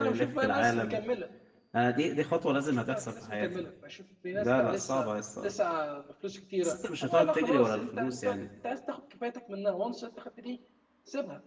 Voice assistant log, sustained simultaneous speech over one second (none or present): present